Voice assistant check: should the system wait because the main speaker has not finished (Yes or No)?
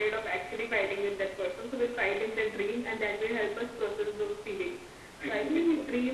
Yes